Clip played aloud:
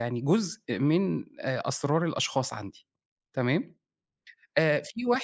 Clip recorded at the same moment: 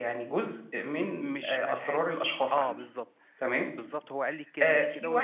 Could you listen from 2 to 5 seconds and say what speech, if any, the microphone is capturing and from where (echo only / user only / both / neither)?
both